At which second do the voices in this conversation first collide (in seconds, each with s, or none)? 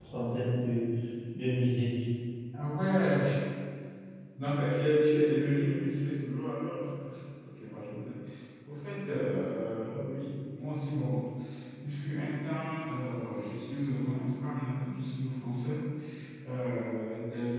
none